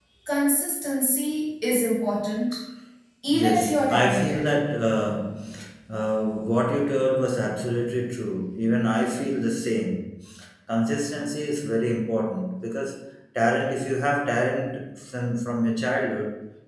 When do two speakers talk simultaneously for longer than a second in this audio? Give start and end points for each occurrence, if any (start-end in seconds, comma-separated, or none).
3.3-4.5